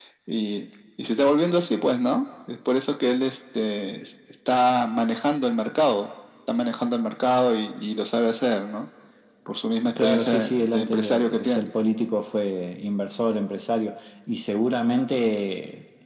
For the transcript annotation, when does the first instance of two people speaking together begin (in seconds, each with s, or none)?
10.0 s